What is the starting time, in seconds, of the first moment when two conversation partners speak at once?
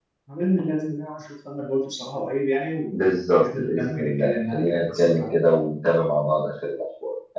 2.9 s

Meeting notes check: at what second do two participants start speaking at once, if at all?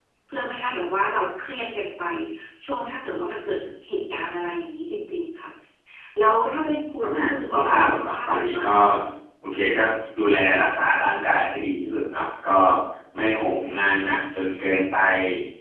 7.0 s

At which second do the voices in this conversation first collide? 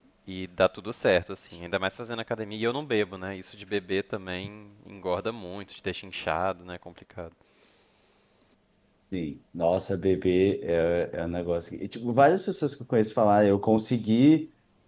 none

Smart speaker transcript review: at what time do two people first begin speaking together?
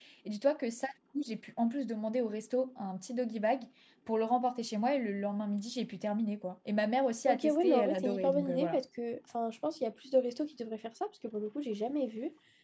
7.3 s

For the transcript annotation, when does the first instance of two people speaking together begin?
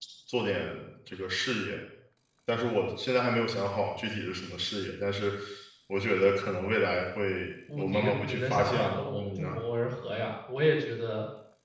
7.7 s

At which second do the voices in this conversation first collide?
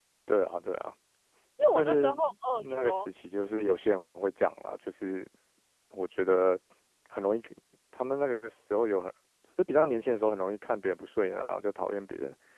1.7 s

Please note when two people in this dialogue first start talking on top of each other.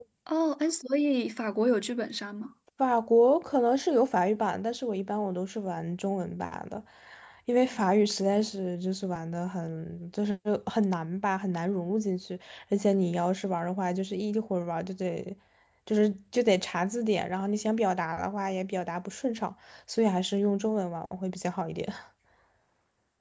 none

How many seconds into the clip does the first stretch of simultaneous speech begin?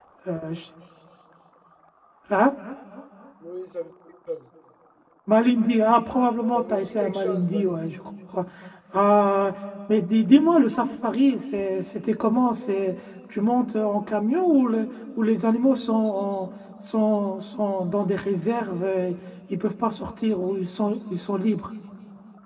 6.5 s

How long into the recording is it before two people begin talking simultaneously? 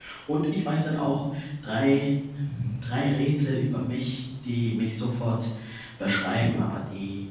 none

